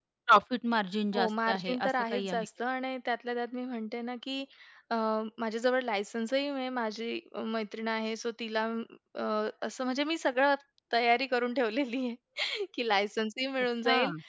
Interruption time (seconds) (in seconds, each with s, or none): 1.1 s